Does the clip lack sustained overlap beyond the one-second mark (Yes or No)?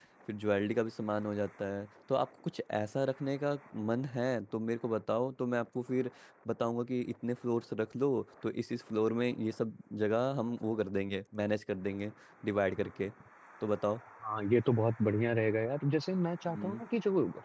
Yes